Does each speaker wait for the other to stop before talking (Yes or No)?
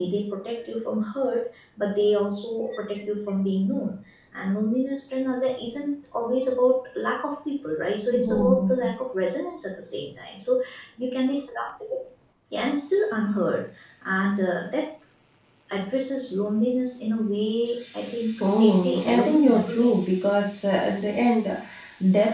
No